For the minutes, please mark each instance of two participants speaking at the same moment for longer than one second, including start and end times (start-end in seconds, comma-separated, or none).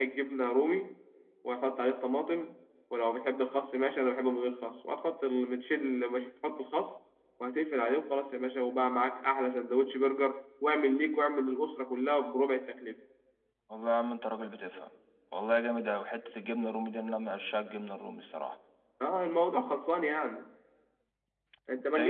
none